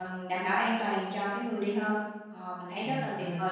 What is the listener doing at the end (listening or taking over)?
taking over